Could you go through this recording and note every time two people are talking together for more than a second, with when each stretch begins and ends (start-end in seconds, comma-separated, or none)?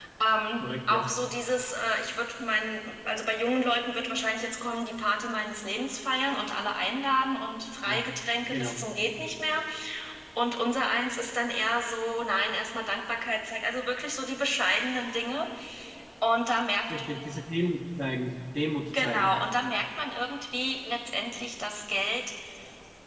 none